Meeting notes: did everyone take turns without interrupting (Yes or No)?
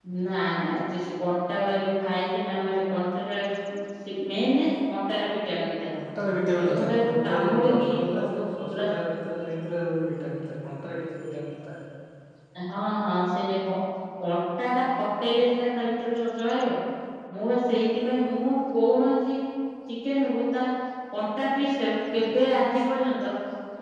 No